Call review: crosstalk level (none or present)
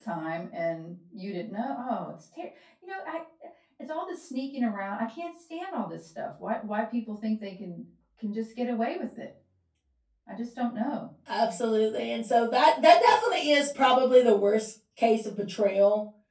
none